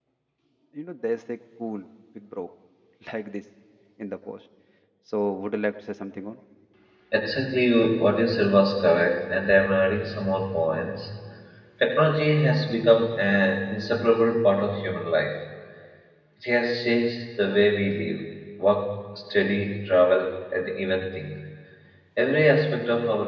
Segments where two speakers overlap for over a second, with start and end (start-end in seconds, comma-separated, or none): none